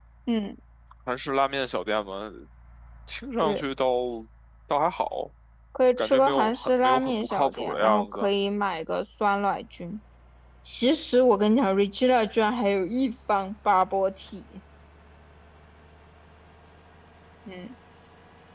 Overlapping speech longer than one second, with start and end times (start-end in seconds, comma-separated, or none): 6.0-8.3